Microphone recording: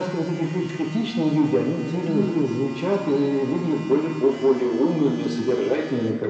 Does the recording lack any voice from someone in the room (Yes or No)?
No